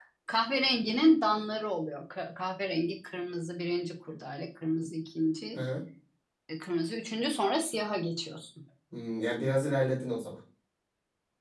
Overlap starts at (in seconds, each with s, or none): none